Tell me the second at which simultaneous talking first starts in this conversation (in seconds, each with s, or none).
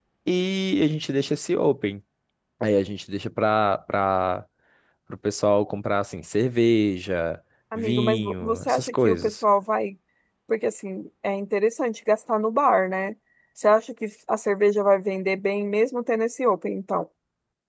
7.7 s